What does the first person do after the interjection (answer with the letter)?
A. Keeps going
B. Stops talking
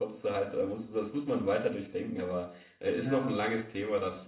A